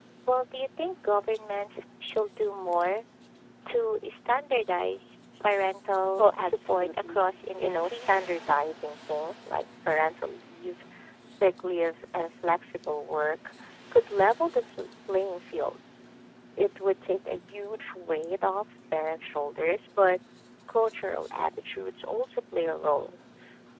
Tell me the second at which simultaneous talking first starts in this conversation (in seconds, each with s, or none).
6.2 s